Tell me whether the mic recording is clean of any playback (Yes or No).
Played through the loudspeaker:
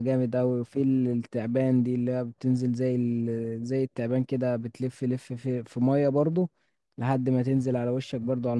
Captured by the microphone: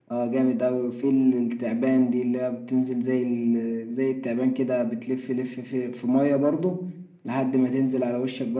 No